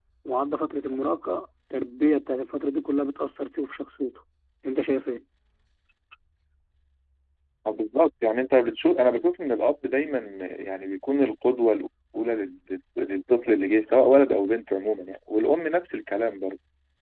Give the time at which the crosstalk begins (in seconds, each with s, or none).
none